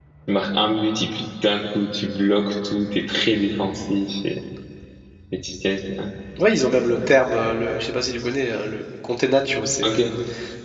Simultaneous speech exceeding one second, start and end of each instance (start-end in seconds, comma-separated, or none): none